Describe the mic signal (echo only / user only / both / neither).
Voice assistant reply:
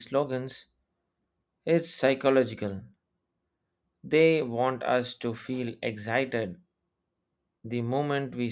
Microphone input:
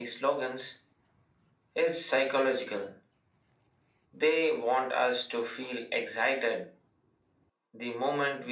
echo only